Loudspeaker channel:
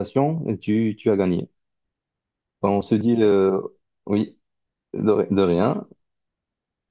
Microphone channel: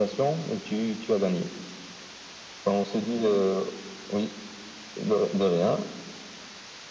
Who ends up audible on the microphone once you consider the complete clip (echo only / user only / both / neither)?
echo only